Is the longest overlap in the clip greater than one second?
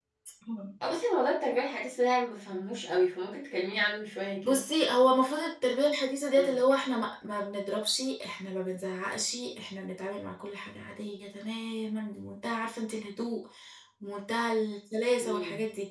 No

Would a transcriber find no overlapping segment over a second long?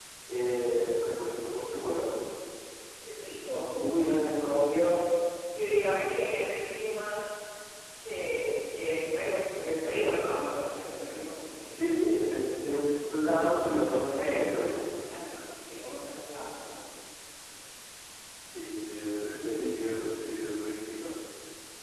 No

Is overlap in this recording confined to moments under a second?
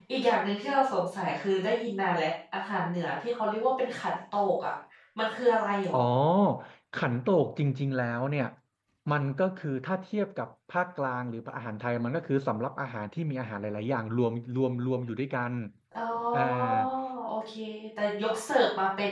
Yes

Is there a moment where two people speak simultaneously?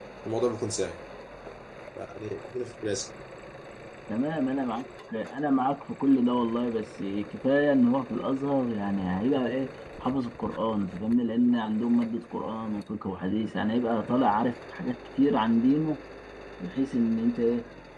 No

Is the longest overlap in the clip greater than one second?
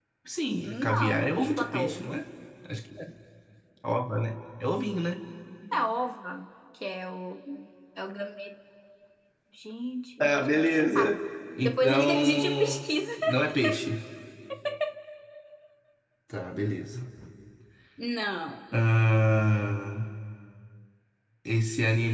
Yes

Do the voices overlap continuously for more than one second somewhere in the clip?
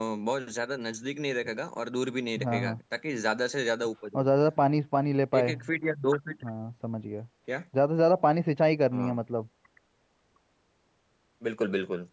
No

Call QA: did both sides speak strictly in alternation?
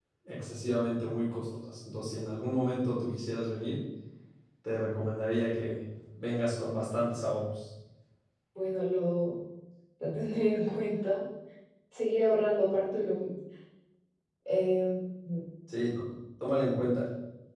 Yes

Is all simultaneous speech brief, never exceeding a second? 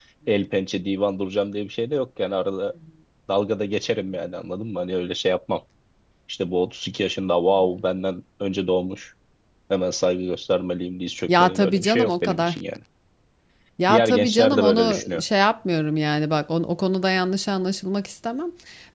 No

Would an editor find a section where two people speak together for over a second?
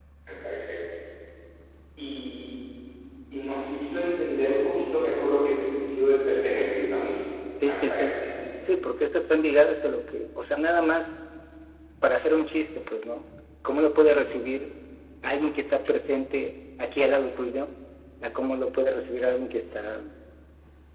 No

